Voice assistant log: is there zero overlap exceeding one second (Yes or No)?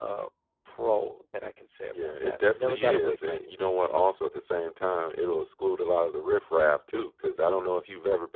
No